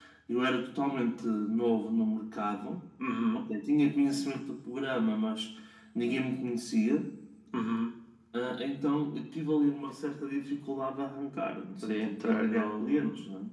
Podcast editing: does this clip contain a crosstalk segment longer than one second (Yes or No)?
Yes